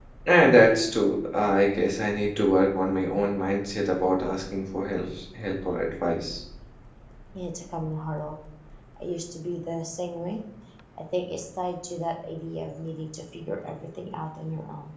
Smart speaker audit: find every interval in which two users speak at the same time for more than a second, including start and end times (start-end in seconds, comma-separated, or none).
none